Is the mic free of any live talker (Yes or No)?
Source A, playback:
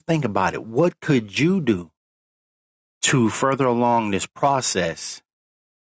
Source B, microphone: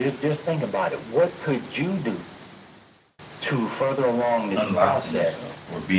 No